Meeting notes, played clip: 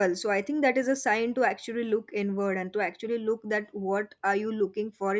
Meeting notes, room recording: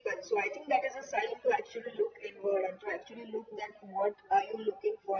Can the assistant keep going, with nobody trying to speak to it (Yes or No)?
Yes